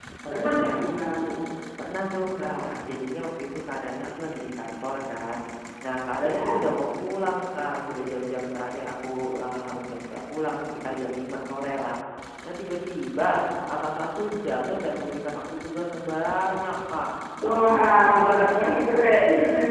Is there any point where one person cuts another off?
Yes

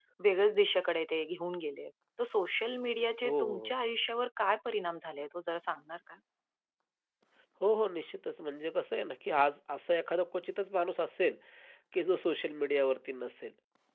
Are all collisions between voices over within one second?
Yes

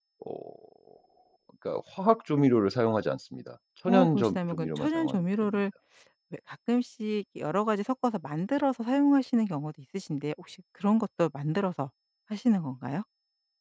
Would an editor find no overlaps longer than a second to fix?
No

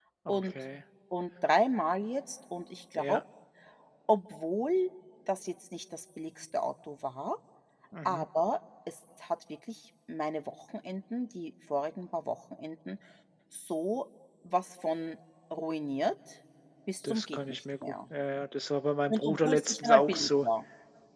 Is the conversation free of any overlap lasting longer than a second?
No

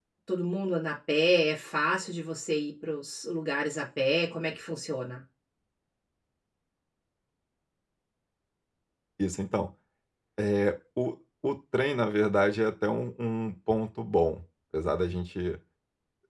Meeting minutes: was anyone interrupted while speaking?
No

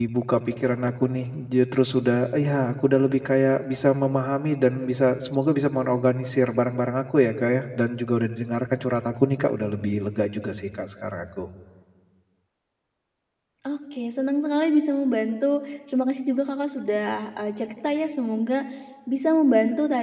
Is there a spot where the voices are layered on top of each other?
No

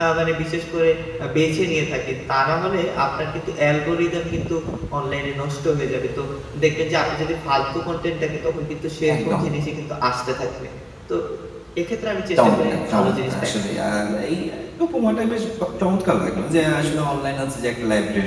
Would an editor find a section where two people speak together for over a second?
Yes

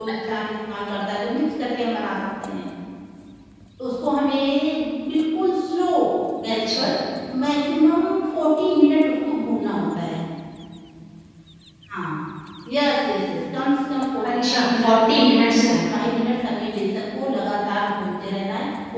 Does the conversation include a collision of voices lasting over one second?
Yes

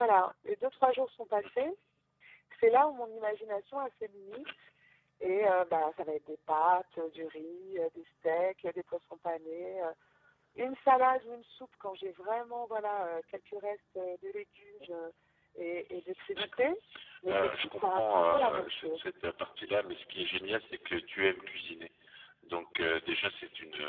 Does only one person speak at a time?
No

